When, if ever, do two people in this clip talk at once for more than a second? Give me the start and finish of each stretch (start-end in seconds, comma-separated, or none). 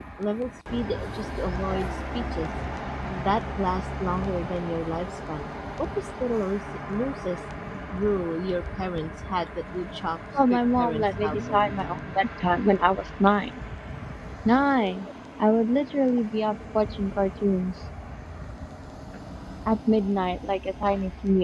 10.5-11.7